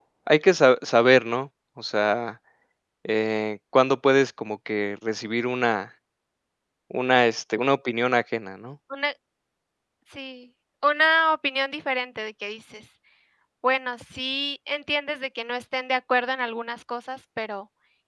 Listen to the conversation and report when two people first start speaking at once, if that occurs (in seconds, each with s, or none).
none